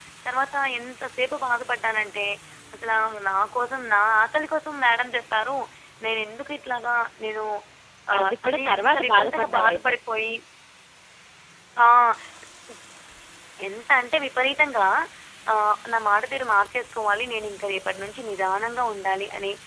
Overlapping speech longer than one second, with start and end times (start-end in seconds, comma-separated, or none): 8.2-9.9